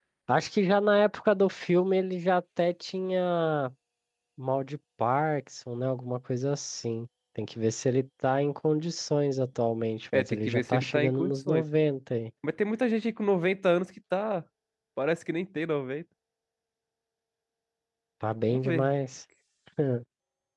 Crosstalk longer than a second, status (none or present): present